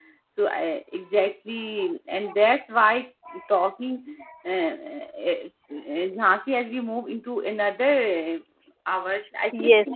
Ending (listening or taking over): taking over